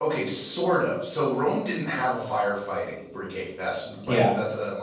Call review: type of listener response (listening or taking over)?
listening